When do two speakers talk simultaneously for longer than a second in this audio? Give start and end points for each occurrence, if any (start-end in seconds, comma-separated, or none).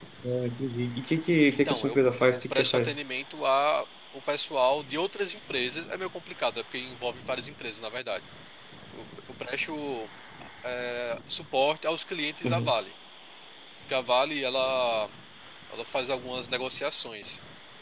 1.5-3.0